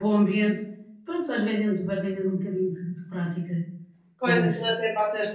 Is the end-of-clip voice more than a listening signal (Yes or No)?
Yes